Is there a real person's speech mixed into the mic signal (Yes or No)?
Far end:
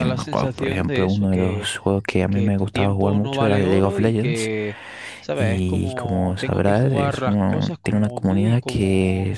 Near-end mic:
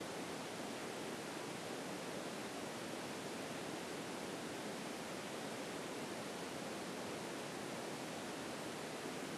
No